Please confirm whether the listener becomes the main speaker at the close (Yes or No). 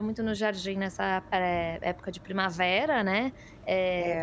No